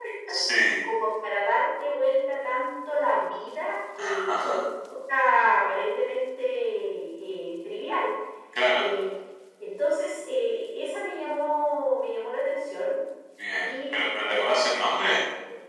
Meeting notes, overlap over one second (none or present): present